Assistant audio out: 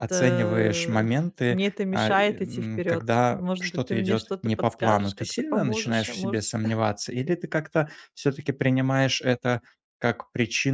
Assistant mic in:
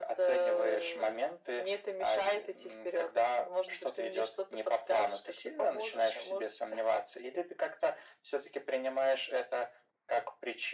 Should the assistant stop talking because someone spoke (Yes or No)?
No